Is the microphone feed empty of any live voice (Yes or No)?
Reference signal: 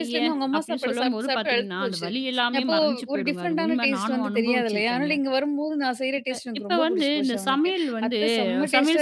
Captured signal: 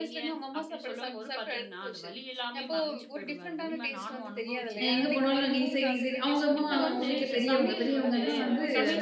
No